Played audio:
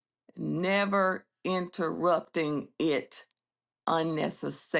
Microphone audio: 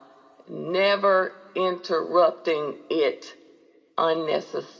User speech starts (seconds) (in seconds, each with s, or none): none